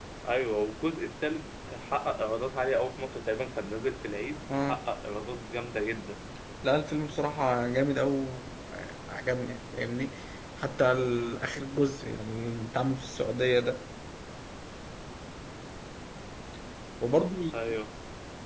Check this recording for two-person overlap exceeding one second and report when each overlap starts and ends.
none

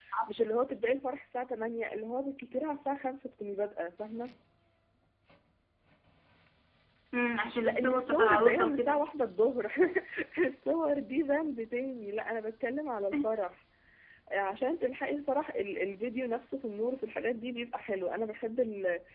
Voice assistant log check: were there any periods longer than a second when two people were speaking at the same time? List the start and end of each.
7.6-9.0

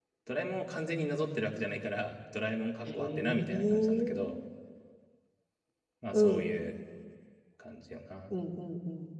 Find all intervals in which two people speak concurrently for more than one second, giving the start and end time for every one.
2.9-4.3

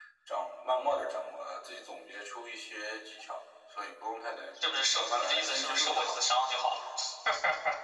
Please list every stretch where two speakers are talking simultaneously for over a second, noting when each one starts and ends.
4.6-6.2

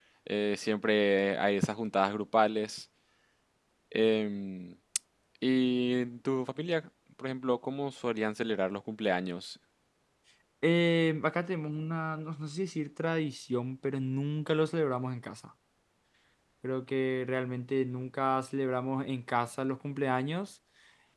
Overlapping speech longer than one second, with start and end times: none

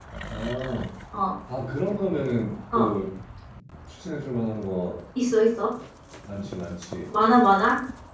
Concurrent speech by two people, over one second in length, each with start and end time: none

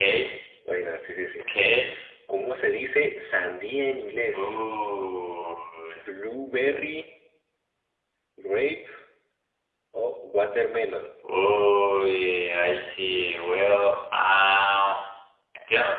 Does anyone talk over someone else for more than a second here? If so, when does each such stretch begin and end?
none

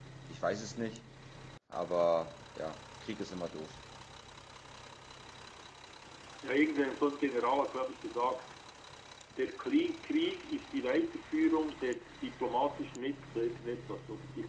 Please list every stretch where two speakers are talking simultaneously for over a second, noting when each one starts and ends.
none

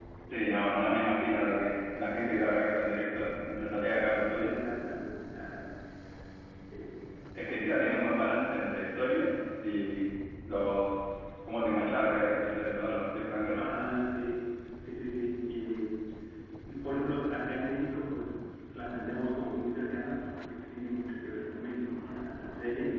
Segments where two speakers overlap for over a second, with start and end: none

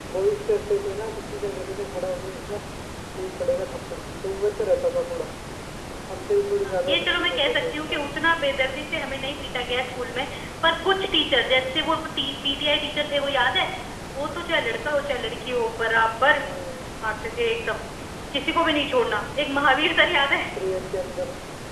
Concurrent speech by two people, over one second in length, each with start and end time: 6.7-8.1

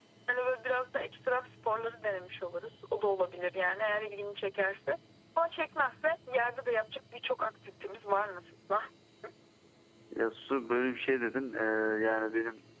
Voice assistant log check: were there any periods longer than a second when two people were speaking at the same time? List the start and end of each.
none

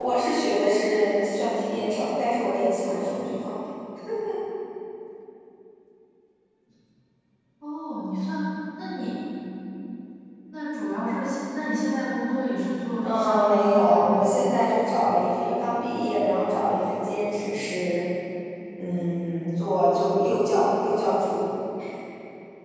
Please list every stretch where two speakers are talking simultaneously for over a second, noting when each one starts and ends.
13.0-14.3

